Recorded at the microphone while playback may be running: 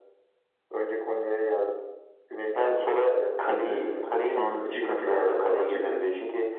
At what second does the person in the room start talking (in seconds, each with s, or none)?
3.5 s